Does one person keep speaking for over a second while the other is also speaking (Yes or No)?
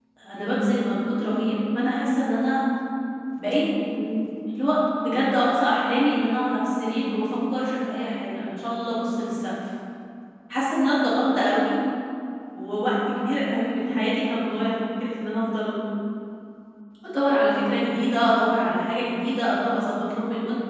No